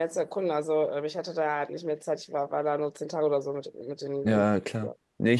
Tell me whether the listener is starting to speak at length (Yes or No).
Yes